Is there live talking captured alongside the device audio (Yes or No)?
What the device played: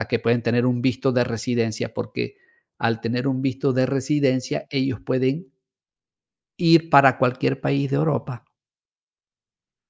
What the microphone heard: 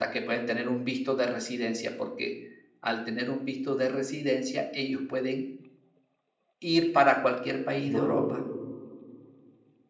Yes